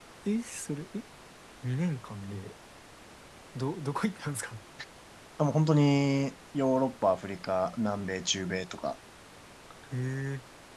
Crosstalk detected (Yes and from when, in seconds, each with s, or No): No